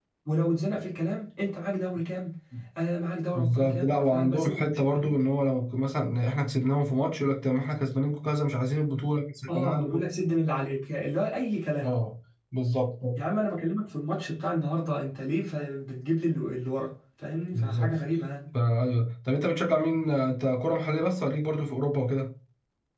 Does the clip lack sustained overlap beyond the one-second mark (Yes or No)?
No